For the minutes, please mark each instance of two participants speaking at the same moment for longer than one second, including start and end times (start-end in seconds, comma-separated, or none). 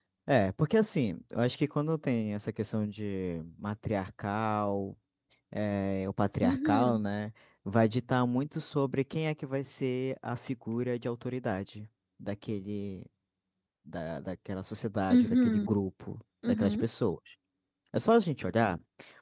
none